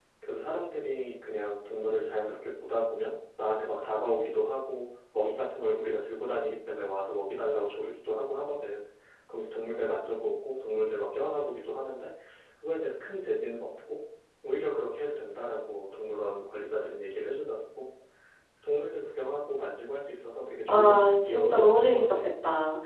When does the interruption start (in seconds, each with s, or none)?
20.7 s